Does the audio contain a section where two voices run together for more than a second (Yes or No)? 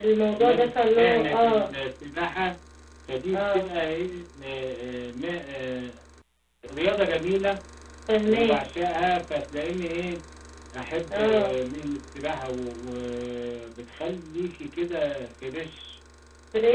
Yes